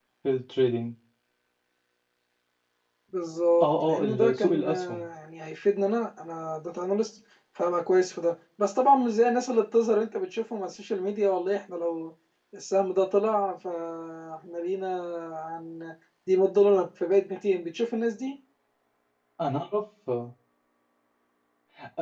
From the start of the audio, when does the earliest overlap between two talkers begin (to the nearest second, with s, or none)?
4 s